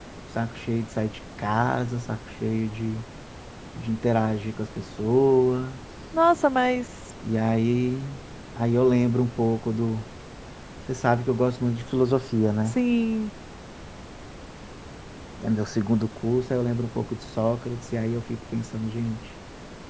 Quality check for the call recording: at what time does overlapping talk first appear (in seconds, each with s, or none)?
none